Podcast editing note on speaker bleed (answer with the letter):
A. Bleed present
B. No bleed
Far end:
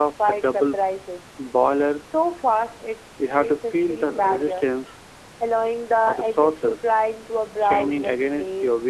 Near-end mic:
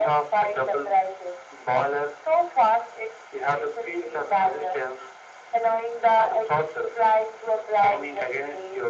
A